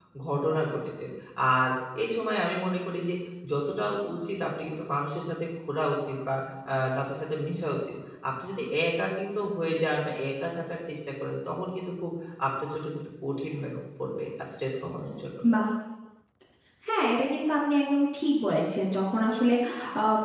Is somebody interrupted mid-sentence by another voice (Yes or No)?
No